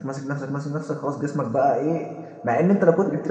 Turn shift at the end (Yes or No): No